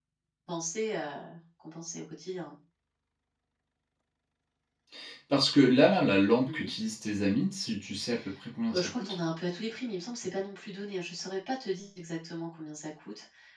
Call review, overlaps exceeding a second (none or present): none